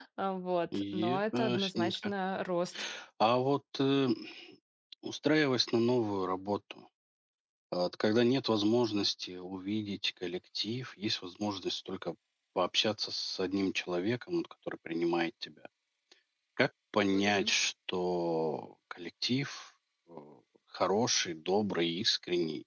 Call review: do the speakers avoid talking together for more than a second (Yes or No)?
No